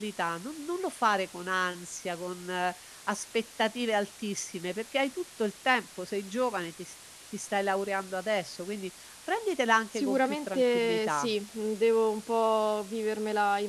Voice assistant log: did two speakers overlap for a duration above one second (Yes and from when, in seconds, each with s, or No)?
Yes, from 9.9 s